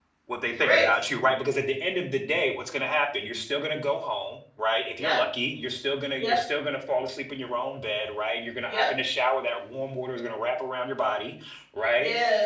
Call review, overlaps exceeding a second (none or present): none